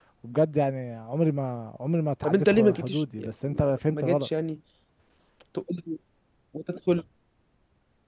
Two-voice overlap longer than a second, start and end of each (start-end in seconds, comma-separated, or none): 2.2-4.3